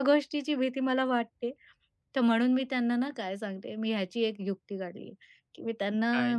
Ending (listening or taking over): listening